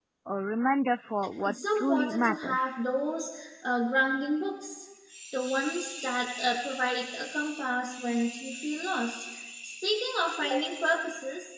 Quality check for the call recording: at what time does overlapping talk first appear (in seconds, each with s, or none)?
1.4 s